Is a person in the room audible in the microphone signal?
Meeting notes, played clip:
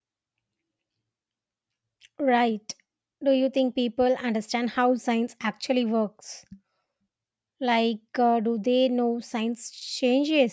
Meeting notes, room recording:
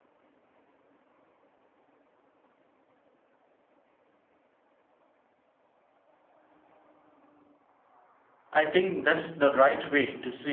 Yes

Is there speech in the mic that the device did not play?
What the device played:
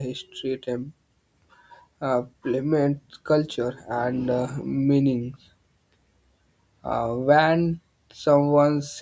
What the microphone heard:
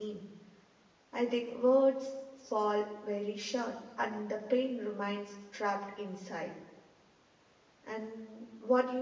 Yes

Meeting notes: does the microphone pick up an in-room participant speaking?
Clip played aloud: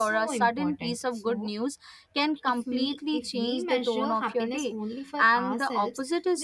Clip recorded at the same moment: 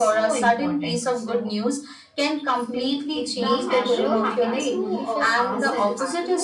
Yes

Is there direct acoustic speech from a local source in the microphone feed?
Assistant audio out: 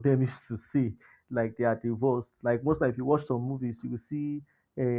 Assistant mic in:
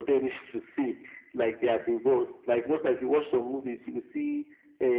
No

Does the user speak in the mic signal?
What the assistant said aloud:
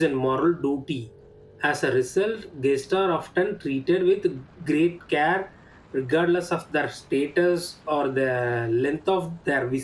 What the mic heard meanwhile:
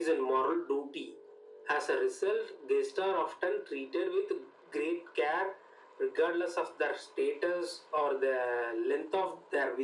No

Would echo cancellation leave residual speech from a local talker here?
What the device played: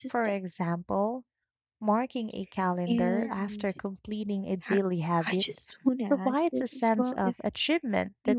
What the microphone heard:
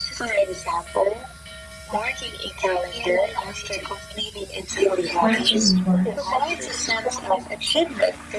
Yes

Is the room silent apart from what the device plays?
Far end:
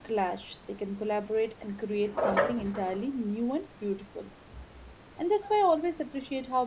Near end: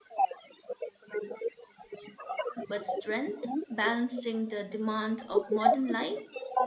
No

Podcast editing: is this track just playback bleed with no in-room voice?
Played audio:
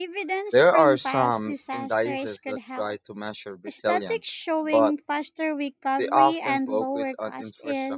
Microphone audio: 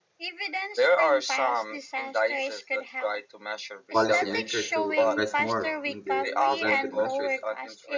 No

